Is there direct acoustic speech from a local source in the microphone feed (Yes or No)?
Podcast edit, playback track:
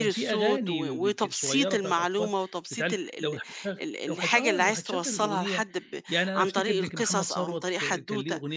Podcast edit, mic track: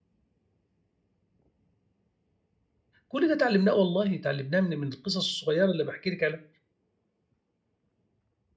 Yes